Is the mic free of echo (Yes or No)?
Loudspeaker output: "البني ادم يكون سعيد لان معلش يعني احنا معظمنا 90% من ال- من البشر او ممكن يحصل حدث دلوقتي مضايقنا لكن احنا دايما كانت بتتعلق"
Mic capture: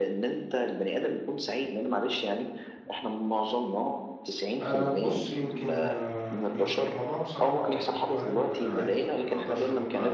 No